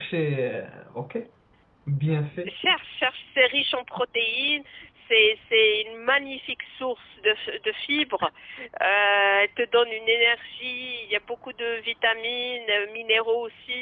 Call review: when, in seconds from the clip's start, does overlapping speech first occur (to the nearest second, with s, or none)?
none